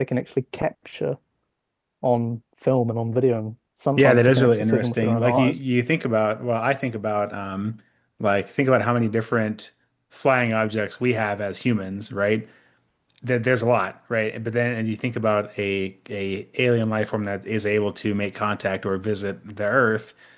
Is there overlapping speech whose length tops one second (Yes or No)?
Yes